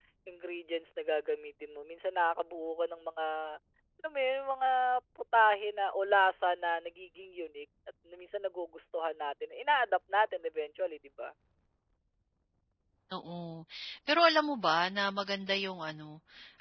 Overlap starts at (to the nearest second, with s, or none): none